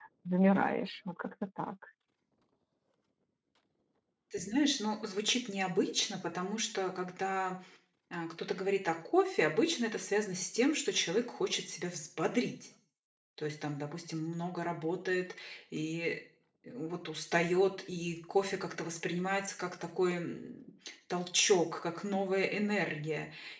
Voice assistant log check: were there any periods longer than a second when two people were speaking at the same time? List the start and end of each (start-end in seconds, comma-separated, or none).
none